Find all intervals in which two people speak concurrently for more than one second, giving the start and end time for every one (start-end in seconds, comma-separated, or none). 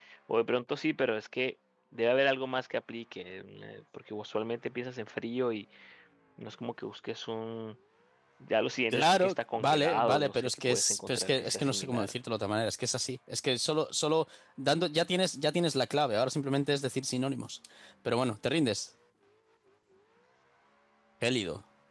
8.9-12.1